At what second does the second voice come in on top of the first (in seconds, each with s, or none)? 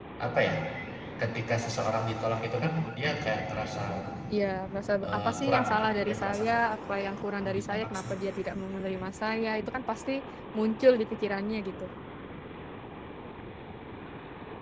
5.0 s